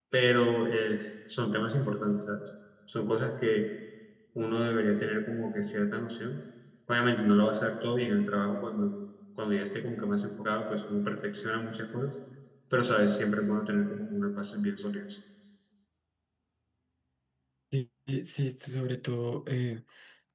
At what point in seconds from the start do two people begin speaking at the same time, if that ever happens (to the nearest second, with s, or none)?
none